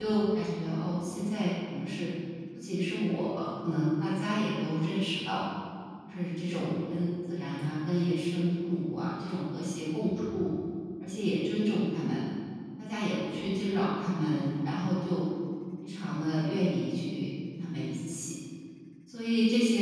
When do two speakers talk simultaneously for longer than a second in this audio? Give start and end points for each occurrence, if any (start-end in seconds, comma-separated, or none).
none